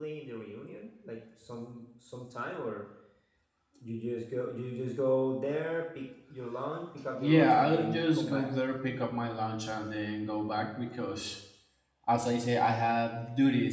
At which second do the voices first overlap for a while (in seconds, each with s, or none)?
7.2 s